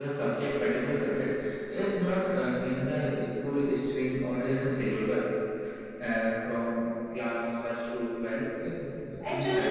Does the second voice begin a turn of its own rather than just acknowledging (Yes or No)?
Yes